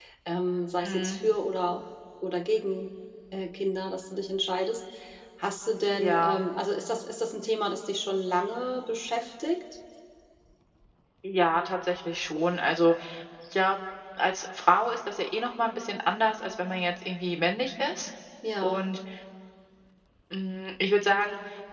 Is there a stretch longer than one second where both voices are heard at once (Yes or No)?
No